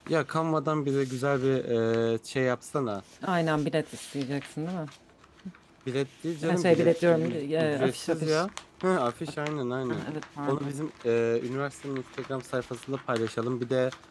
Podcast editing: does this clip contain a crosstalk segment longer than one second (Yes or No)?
Yes